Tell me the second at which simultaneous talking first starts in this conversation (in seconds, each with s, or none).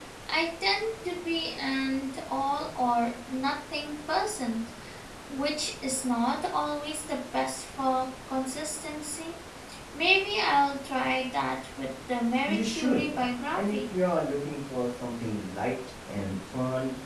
12.5 s